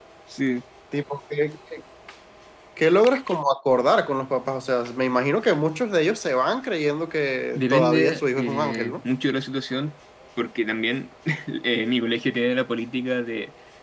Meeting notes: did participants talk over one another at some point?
Yes, from 7.5 s

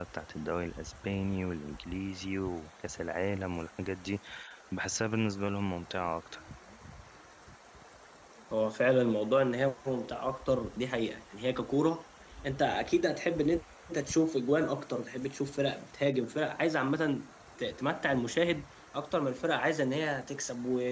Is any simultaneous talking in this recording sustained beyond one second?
No

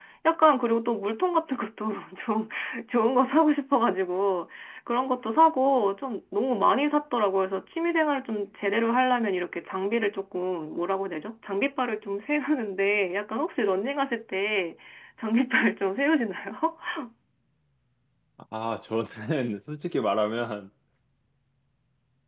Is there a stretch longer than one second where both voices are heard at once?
No

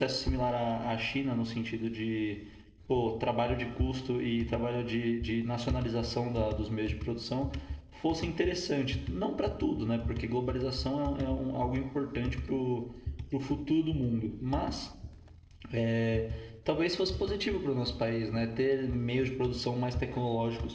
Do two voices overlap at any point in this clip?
No

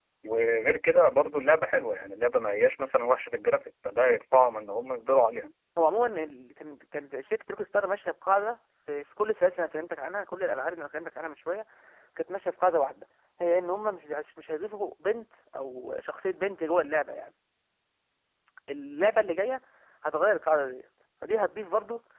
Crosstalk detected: No

